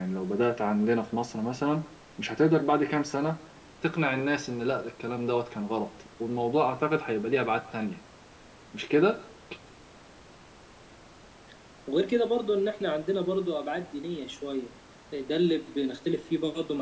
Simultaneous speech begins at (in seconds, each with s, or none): none